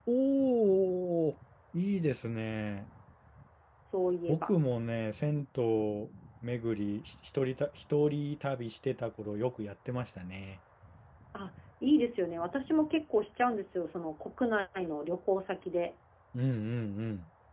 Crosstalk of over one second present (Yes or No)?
No